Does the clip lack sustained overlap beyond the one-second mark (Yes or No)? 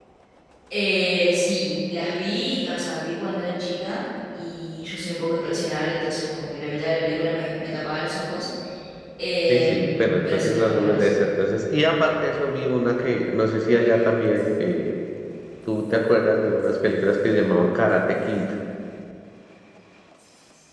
No